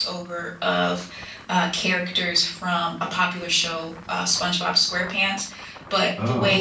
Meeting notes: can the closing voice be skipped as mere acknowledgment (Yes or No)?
Yes